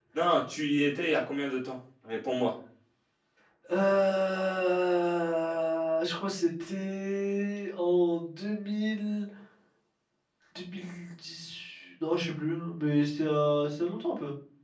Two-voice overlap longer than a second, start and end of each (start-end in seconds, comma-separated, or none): none